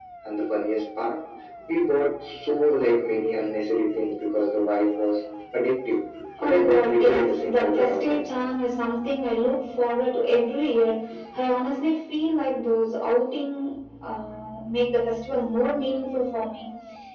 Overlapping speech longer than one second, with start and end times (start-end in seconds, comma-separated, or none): 6.4-8.2